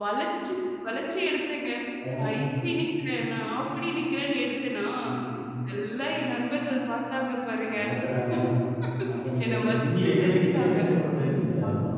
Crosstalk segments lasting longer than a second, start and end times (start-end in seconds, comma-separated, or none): 9.4-10.8